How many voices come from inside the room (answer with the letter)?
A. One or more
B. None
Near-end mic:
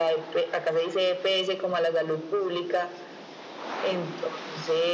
B